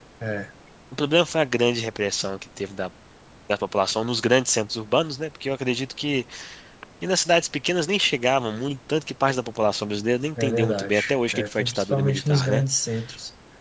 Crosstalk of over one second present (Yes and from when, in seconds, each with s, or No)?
Yes, from 10.4 s